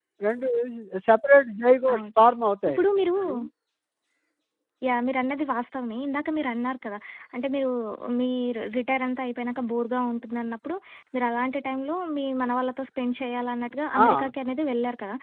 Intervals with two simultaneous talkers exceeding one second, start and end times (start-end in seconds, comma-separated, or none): none